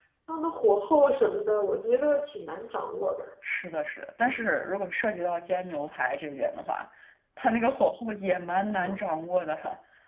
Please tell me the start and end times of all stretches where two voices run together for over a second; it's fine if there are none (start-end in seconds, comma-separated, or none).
none